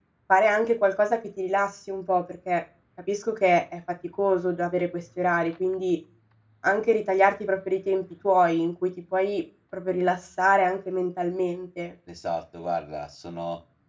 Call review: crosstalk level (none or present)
none